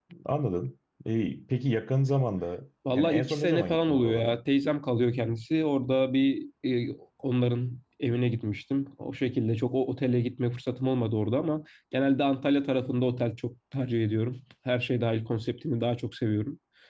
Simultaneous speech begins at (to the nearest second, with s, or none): 3 s